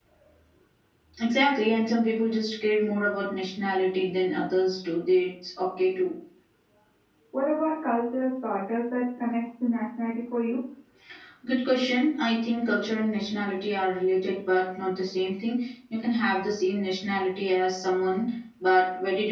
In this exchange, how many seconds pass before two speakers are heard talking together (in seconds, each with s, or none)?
none